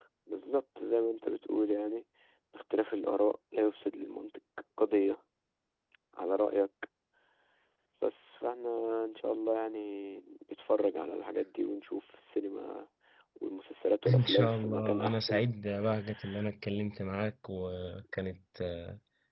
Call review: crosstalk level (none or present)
present